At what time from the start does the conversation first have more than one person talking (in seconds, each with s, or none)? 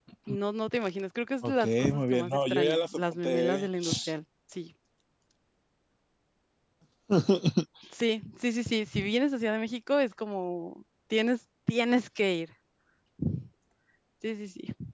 1.4 s